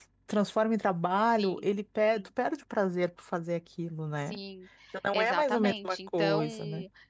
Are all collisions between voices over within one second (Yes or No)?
No